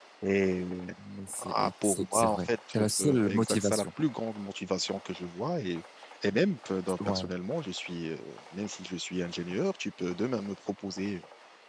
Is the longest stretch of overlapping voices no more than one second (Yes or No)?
No